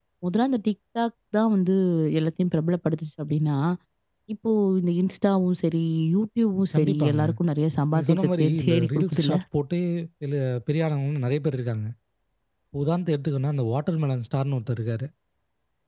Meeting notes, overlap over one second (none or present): present